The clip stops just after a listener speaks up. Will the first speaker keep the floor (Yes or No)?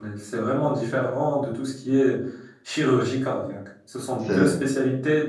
Yes